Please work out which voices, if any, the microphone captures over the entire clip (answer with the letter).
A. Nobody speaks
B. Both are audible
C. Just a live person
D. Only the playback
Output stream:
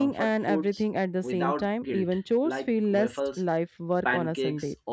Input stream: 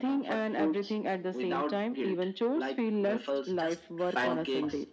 B